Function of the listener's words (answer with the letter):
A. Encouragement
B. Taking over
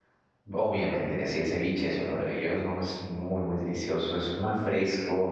A